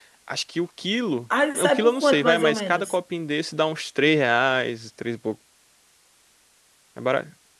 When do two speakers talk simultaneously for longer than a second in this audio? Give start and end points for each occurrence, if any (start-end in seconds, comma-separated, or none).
1.6-3.0